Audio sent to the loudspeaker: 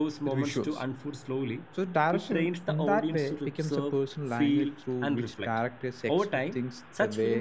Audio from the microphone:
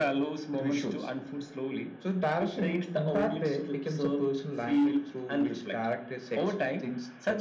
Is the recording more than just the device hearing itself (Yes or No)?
No